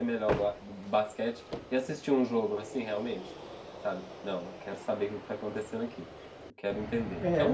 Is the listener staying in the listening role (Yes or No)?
No